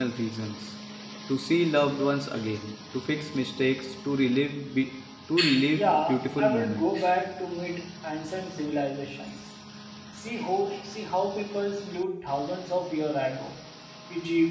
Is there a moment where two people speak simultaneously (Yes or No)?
Yes